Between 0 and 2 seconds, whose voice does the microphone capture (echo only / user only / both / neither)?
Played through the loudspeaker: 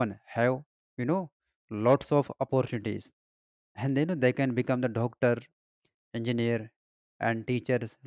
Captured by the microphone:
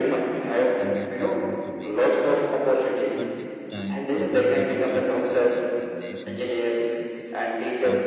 both